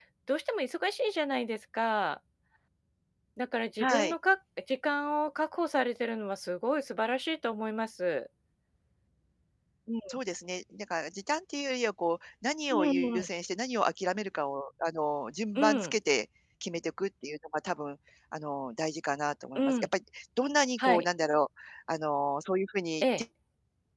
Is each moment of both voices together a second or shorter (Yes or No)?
Yes